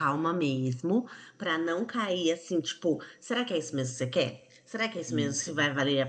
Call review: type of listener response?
listening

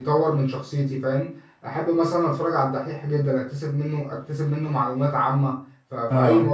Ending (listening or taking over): listening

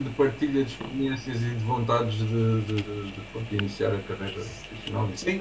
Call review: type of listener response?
taking over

